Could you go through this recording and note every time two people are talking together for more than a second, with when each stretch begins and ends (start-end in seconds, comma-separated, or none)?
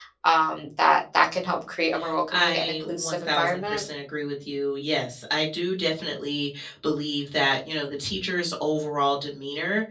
2.3-3.8